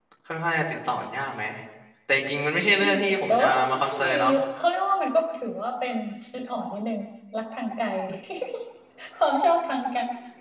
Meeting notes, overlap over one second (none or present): present